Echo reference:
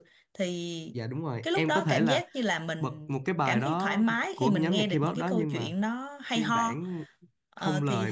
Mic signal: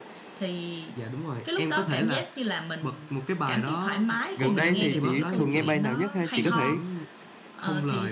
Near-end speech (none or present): present